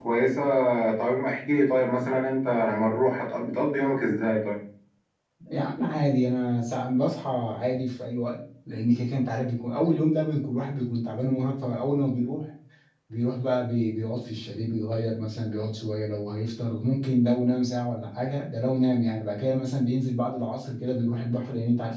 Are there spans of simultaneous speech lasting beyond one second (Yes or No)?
No